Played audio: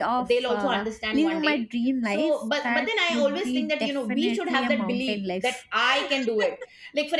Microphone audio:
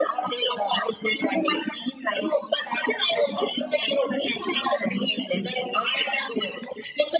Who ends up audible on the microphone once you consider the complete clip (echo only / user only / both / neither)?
echo only